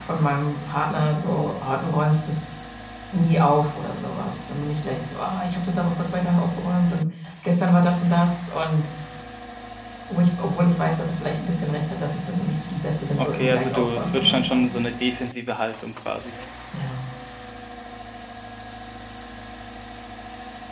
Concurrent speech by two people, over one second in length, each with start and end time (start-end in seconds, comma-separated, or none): 13.2-14.8